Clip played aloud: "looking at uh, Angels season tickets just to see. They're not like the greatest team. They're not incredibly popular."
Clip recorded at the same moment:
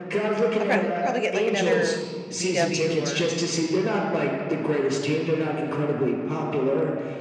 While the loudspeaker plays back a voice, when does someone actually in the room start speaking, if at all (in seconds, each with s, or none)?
0.6 s